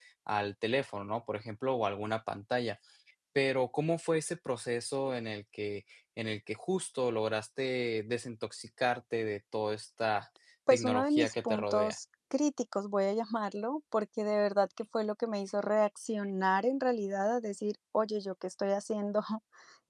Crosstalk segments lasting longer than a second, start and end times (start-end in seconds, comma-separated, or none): 10.7-11.9